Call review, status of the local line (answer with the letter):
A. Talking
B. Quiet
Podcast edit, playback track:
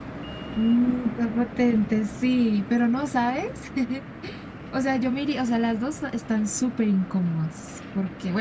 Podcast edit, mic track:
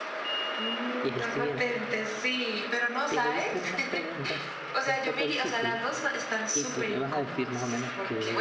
A